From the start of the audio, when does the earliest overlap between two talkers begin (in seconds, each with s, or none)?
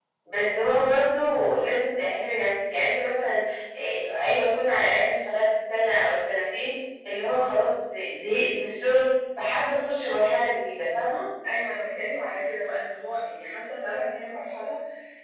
none